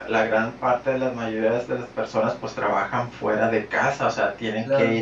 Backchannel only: Yes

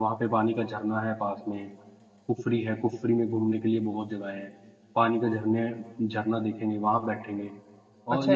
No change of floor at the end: No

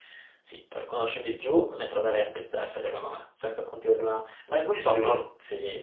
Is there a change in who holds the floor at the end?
No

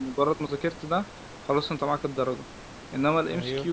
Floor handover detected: No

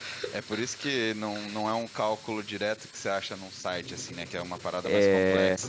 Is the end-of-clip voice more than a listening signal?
Yes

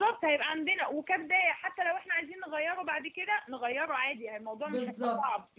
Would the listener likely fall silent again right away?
No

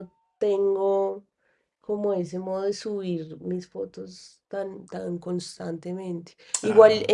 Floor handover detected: No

